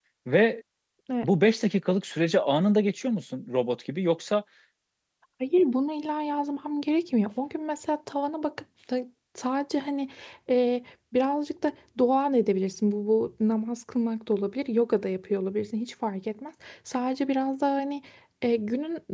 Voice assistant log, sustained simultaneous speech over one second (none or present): none